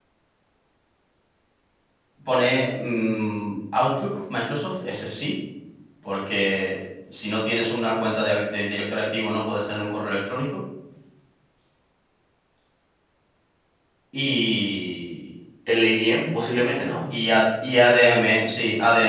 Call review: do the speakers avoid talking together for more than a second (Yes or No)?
Yes